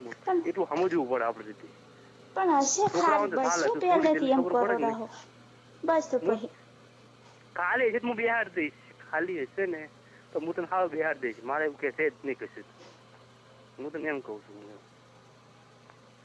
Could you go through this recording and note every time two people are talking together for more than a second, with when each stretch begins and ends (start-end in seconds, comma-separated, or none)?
2.9-5.0